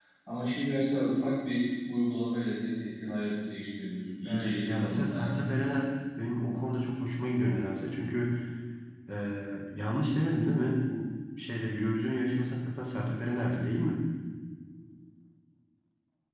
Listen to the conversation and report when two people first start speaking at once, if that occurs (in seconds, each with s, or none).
4.2 s